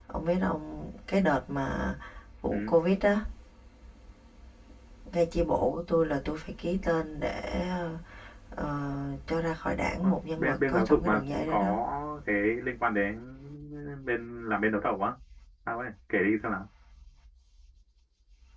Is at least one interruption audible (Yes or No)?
Yes